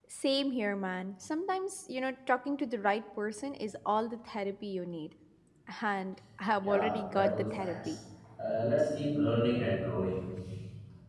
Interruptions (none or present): present